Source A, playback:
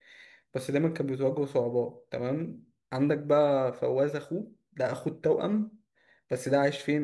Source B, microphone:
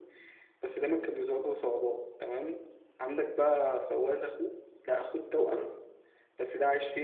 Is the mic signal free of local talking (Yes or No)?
Yes